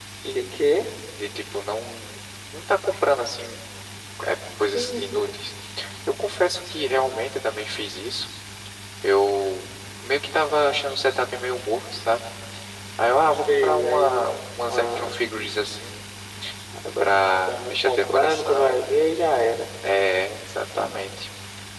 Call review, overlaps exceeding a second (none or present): present